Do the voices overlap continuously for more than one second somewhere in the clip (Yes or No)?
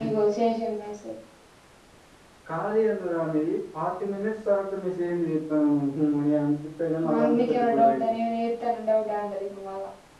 Yes